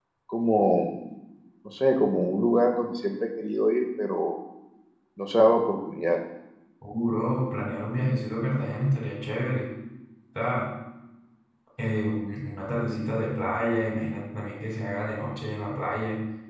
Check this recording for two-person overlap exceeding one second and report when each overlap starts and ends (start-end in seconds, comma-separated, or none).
none